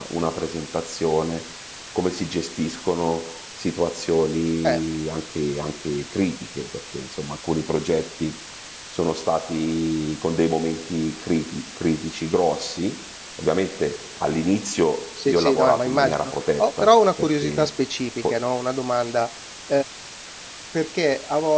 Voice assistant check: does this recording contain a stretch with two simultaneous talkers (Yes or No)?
Yes